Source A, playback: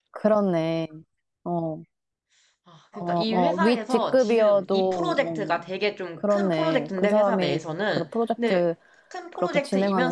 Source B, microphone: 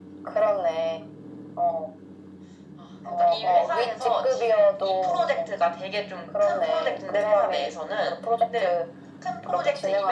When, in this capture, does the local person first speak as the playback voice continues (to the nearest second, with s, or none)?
none